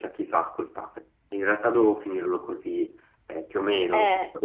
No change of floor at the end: Yes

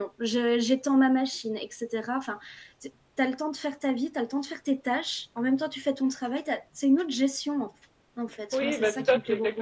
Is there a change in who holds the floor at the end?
Yes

